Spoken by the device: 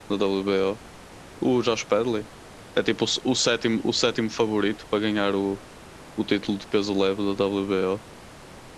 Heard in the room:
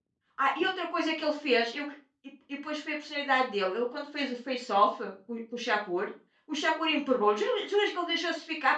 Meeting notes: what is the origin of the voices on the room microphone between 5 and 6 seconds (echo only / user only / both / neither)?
user only